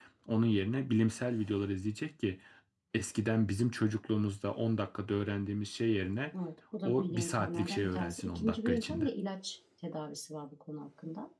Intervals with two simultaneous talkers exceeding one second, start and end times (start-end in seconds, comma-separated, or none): 6.8-9.1